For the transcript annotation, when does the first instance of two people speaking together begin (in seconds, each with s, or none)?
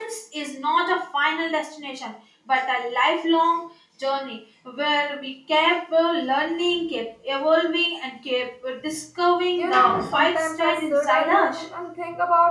9.6 s